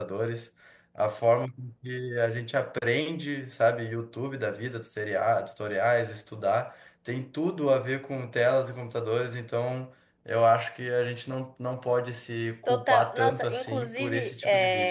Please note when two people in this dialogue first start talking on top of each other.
12.7 s

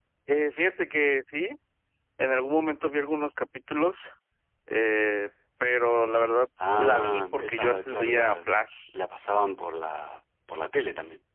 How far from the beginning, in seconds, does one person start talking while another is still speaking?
6.6 s

